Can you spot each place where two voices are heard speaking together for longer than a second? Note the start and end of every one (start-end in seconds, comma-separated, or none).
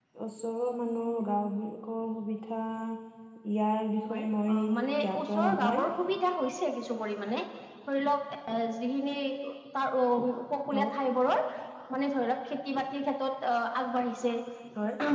4.1-5.9